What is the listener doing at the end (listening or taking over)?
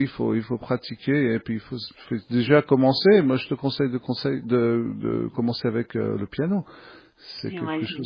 taking over